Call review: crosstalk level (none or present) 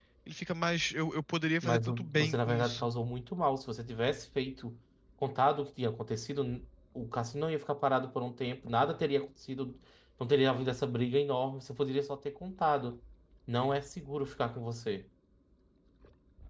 present